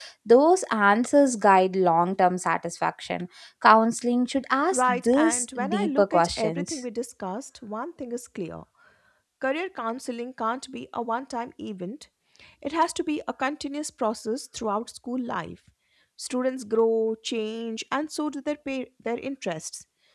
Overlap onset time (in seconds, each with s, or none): 4.7 s